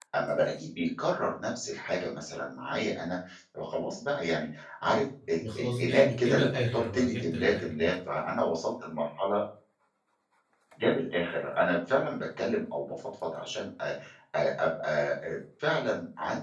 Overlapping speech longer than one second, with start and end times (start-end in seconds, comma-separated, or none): 5.4-7.9